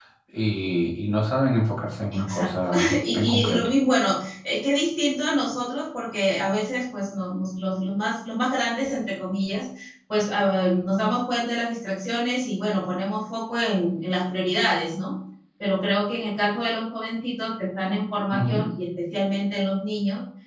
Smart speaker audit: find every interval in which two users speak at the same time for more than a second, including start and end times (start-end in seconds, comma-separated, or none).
2.1-3.7